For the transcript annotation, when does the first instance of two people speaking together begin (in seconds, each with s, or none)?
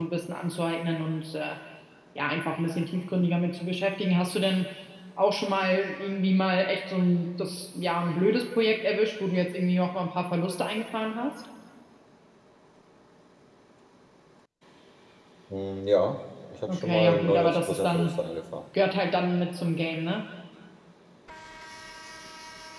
16.7 s